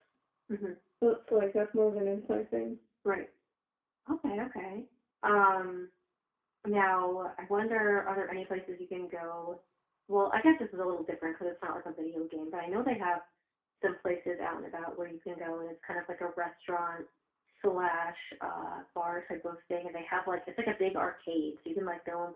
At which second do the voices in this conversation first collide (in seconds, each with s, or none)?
none